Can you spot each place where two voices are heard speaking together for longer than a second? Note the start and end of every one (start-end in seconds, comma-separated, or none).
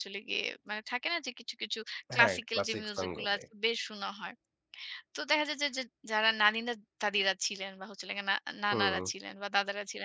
2.2-3.4